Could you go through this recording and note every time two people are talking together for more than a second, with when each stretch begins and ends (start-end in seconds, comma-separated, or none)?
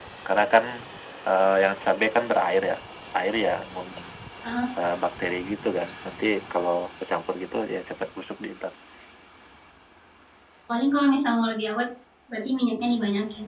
none